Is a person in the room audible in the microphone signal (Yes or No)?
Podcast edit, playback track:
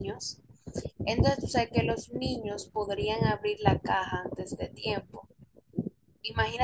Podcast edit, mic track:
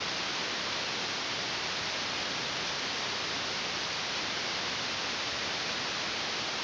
No